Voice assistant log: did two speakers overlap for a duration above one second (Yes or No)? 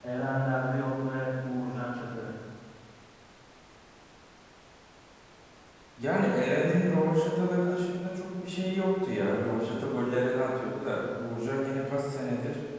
No